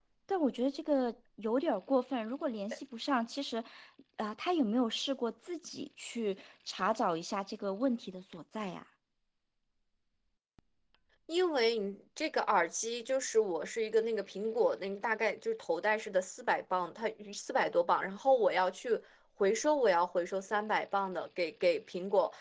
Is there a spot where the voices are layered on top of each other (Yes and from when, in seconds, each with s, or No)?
No